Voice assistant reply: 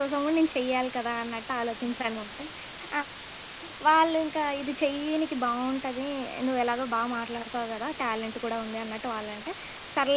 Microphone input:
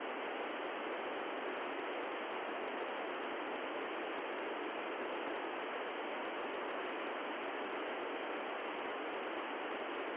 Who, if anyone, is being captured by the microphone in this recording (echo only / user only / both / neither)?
neither